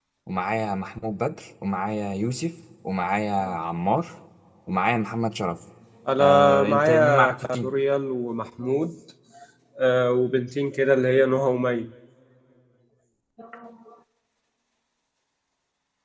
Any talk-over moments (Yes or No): Yes